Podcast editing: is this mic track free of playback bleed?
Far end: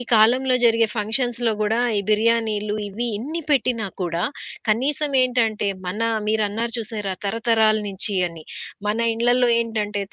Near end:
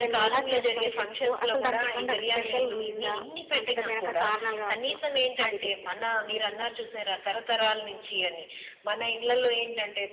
No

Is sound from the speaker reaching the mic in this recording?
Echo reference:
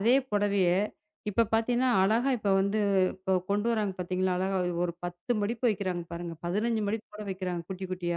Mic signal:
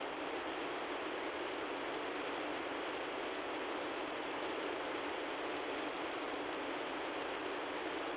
No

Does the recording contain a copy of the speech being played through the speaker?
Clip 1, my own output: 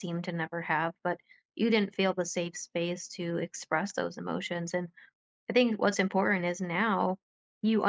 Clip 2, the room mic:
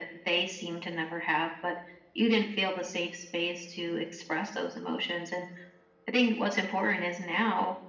Yes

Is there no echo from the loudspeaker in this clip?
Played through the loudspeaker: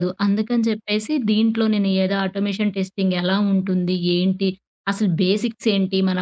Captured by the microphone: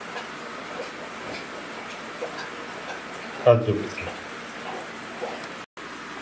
Yes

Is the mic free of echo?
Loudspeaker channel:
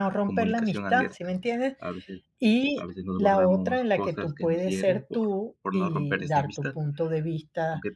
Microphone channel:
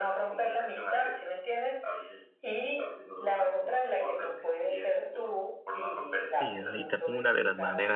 No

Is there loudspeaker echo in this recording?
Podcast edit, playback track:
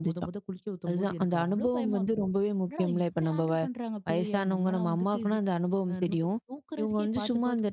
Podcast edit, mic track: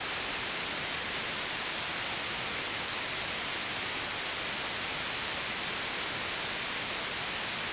No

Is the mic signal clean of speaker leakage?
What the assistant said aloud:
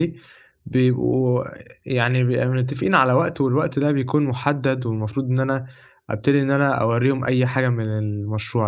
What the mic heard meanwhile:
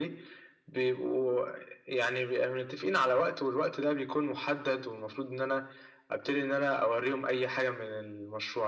No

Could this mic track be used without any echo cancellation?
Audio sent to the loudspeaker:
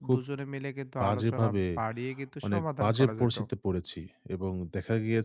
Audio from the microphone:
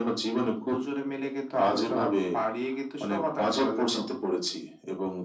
No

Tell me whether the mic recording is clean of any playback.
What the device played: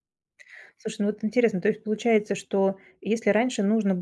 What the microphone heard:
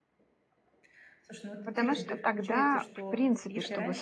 No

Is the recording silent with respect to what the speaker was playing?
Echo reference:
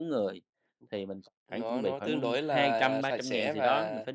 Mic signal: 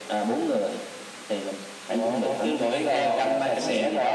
No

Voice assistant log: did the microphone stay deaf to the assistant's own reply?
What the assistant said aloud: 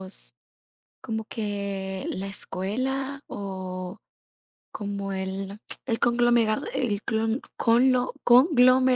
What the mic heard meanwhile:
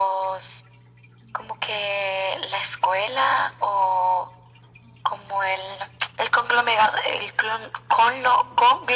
No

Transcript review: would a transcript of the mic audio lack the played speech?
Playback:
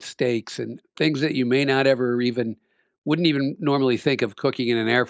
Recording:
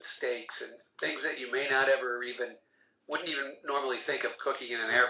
No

